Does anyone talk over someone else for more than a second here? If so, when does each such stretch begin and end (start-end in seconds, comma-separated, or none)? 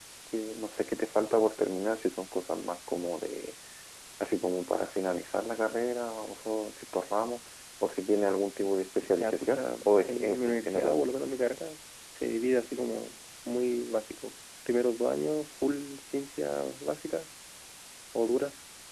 9.2-11.0